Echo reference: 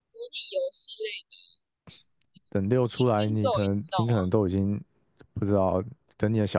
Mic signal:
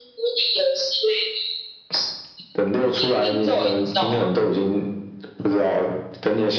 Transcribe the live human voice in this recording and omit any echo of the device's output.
none

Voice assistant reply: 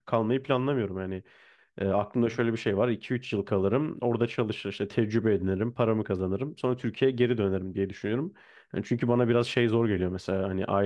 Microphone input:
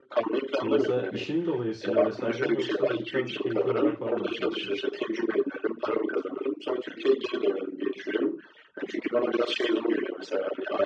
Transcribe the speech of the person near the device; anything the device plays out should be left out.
Bu mesela işin dolayısıyla vesaire mi yoksa cidden keyfi olarak falan mı gitmek istiyorsun?

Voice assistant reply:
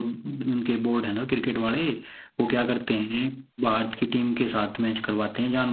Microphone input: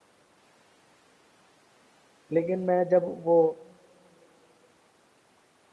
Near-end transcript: लेकिन मैं जब वो

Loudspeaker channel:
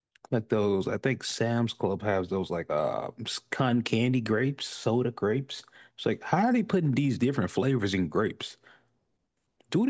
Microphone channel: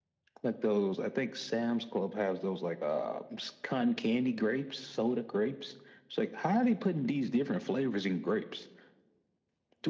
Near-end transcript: none

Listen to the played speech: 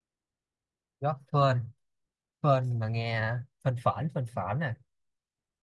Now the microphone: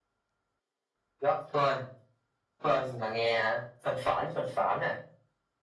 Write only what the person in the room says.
none

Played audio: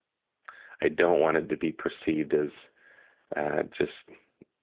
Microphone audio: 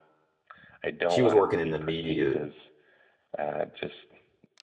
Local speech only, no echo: she was working in the media

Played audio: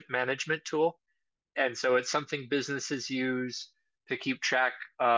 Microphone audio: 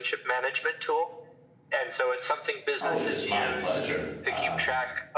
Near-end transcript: Oh, it's my pleasure. Um,

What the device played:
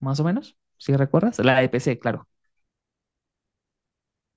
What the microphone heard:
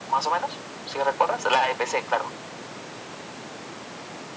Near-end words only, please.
none

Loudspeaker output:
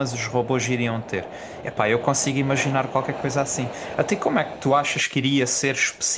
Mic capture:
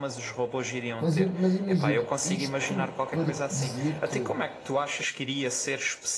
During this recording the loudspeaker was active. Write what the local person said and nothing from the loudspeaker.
Mas, i- mas imagina, isto para te dizer que,

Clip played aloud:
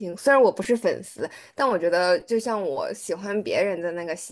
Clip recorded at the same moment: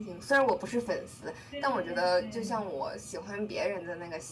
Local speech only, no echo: 对对对，

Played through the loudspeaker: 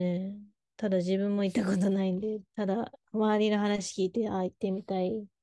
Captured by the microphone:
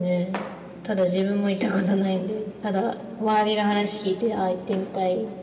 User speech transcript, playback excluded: none

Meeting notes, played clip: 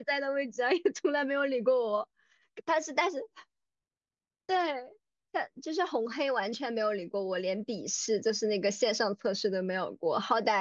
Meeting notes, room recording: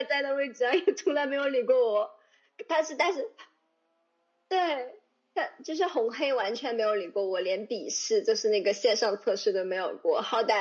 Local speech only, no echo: none

